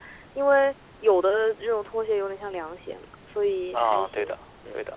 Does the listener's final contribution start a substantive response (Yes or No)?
Yes